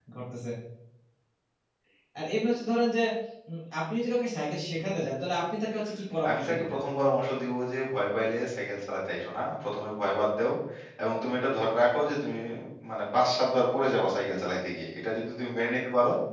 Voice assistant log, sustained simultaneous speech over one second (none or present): none